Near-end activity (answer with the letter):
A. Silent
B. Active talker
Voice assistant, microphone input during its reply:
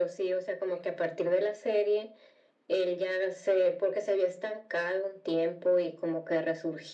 A